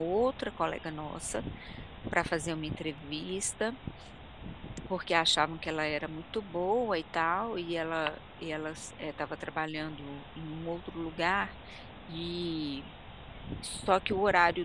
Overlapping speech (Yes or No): No